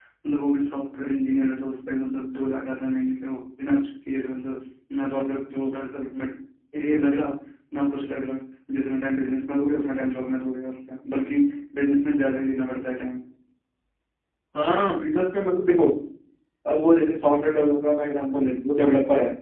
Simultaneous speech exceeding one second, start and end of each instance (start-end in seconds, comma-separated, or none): none